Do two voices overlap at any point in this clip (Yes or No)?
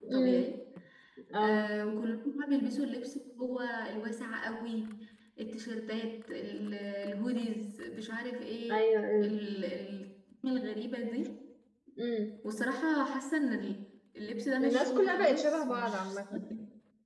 Yes